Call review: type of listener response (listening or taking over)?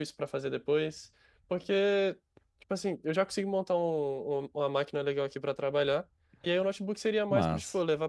listening